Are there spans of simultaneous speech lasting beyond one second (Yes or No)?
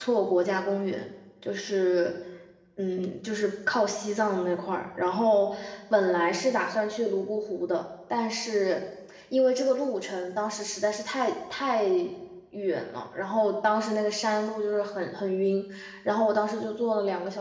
No